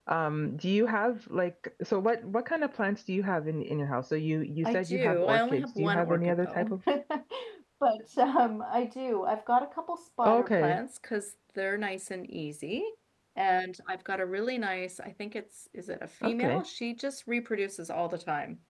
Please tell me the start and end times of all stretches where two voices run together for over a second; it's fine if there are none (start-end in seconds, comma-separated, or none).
4.6-6.8